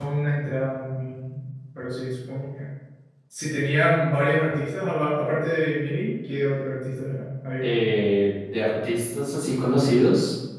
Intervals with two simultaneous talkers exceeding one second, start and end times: none

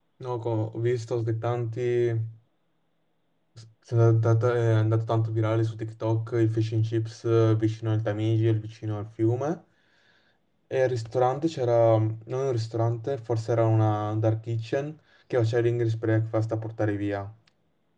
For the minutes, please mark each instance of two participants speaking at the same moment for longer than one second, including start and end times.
none

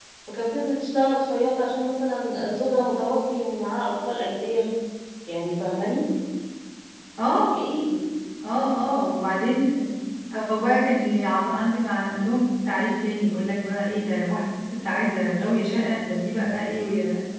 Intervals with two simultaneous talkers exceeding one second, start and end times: none

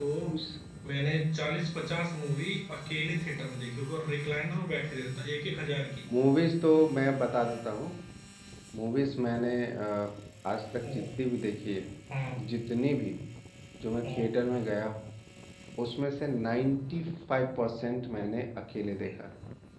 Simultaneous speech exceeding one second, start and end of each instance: none

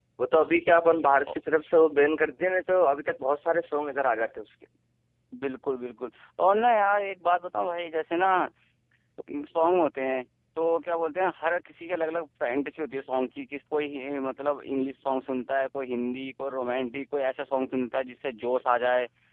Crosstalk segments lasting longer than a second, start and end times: none

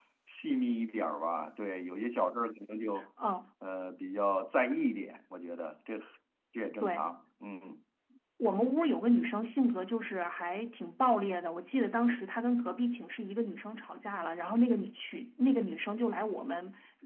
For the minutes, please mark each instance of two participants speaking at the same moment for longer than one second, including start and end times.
none

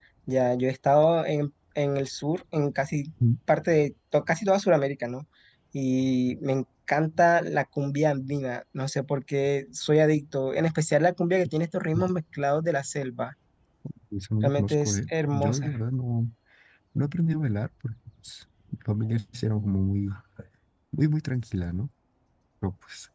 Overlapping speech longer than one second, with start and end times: 14.4-15.8

